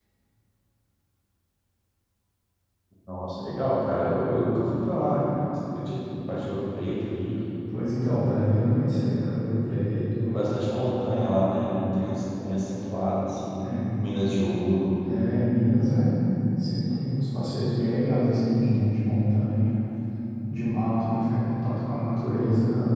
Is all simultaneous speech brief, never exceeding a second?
Yes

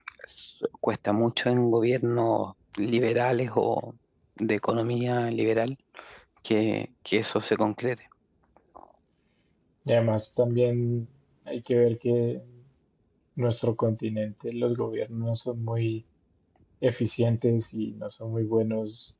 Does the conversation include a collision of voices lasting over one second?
No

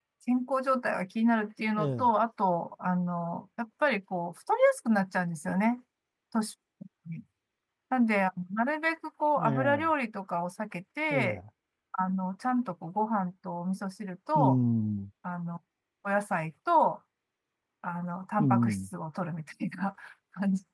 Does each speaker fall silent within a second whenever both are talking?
Yes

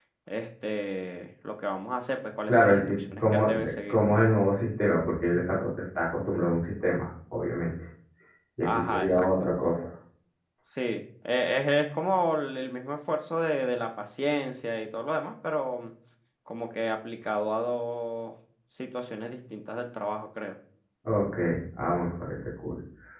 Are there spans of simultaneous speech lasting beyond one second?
Yes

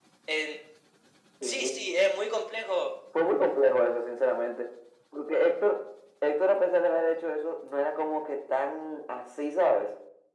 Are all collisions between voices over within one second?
Yes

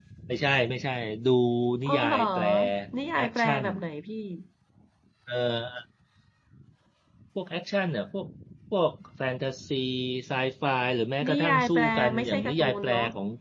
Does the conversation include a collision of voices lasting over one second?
Yes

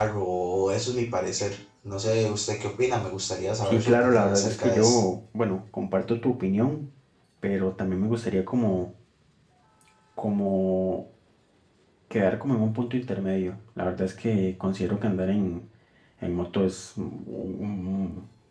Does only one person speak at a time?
No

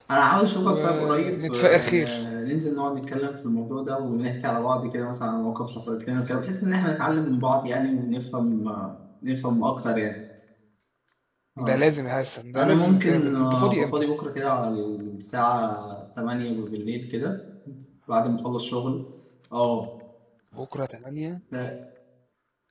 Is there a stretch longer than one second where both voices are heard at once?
Yes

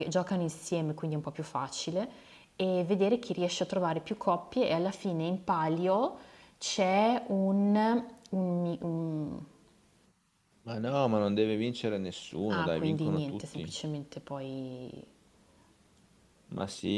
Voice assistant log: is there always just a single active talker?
No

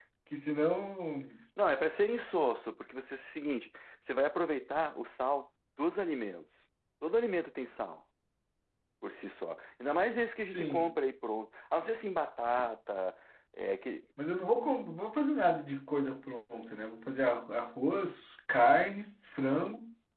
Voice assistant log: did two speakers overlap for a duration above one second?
No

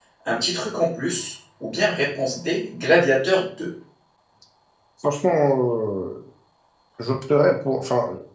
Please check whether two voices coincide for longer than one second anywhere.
No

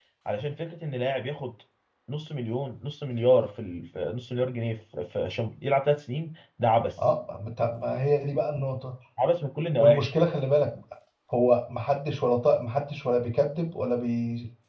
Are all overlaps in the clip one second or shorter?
Yes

